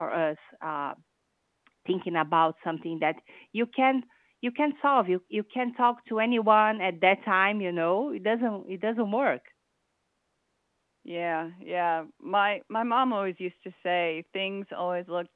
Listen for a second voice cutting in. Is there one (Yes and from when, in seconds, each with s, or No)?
No